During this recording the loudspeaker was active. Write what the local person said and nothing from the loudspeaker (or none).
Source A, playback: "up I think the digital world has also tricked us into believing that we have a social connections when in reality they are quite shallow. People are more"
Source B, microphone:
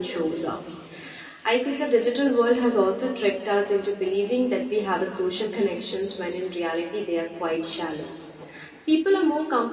none